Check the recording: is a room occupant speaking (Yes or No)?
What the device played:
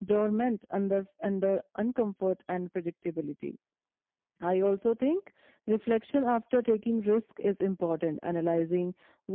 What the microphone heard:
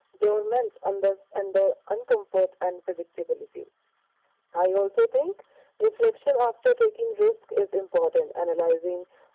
No